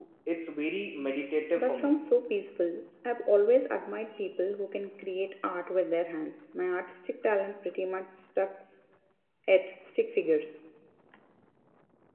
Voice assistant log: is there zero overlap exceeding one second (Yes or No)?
Yes